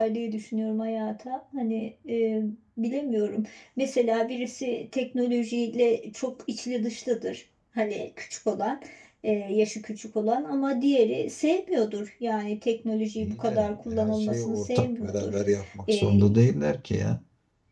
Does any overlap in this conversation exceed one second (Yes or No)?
Yes